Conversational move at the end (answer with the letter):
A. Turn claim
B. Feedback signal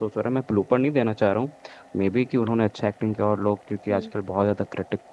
B